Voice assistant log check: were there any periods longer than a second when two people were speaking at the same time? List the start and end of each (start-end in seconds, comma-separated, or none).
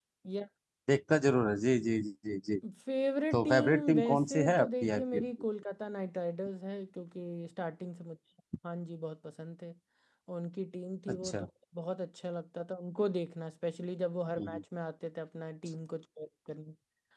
3.3-5.2